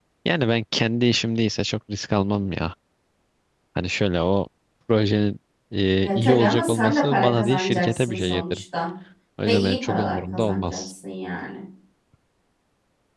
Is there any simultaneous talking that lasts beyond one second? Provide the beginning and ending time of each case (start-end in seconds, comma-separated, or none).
6.0-8.6, 9.4-10.9